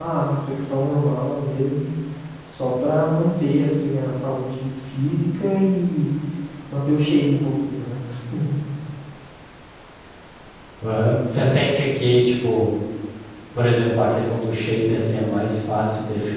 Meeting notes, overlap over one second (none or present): none